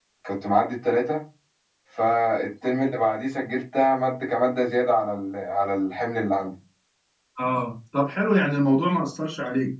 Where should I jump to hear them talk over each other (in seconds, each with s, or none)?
none